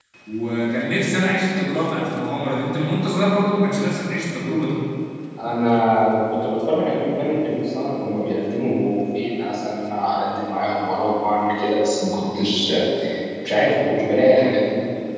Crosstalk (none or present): none